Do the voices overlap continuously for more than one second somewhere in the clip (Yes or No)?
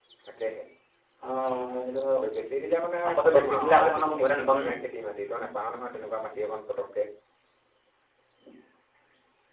Yes